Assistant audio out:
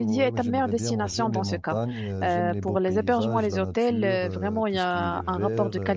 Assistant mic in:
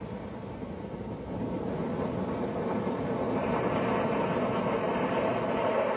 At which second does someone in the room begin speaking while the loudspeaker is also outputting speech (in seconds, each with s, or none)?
none